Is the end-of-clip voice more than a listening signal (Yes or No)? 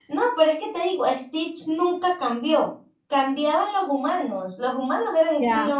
Yes